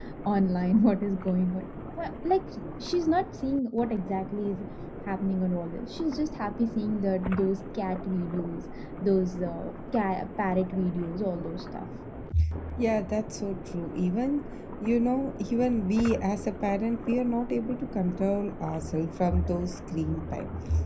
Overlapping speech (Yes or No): No